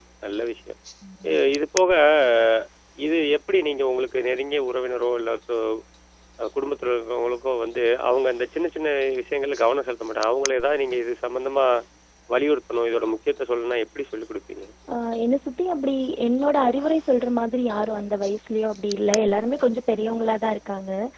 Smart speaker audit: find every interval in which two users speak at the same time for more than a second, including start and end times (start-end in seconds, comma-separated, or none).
none